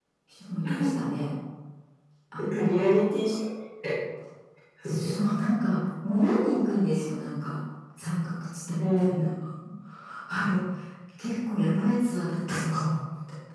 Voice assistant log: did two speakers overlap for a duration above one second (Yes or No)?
No